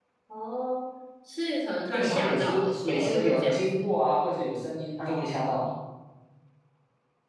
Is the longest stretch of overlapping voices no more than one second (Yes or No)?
No